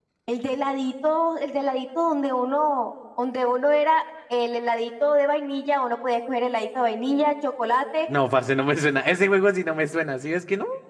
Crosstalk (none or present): none